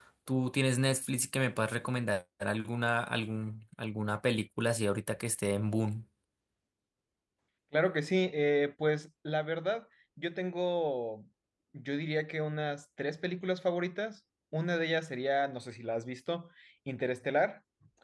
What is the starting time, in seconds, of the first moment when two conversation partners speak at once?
none

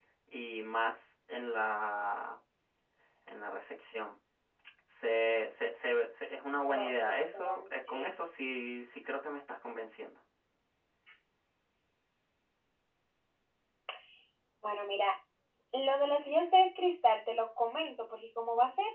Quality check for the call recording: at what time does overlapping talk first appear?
6.7 s

